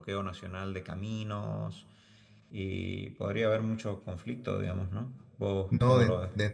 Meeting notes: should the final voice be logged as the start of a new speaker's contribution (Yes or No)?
Yes